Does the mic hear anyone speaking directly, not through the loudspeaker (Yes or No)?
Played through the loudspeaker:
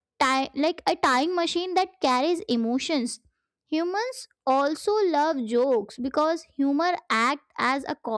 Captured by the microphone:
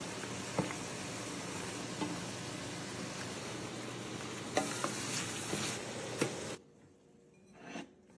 No